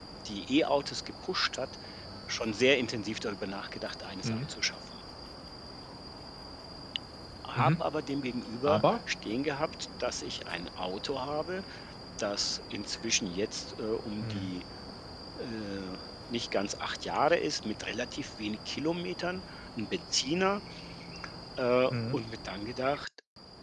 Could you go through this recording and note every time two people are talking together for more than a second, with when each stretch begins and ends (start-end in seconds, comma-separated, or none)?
none